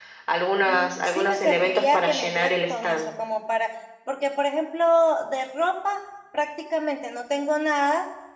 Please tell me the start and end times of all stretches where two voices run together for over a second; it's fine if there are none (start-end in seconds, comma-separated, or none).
0.6-3.1